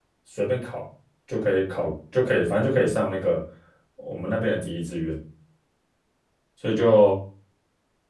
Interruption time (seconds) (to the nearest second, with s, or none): none